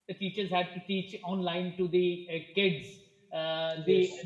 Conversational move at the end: listening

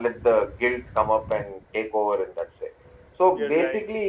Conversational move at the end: listening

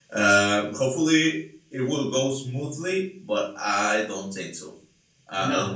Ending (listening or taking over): taking over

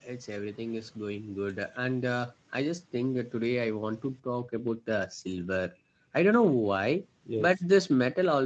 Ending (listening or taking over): listening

